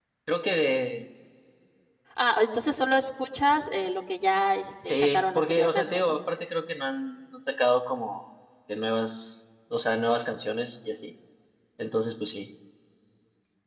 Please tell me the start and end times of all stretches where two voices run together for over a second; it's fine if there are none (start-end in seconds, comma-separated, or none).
4.8-6.2